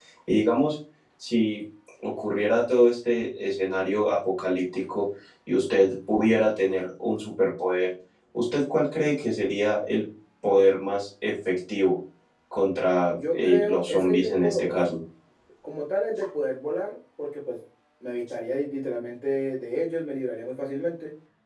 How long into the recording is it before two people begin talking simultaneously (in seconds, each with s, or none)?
13.1 s